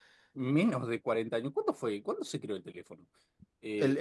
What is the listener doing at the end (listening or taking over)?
taking over